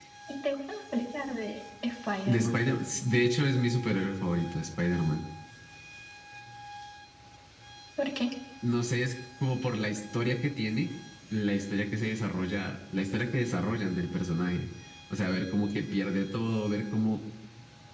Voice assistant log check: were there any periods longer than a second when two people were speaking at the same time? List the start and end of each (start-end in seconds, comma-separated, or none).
none